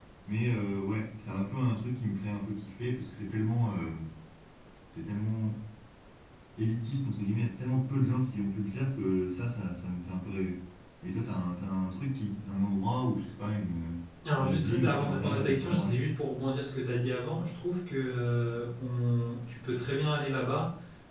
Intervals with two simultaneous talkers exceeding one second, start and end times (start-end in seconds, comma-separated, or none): 14.4-16.0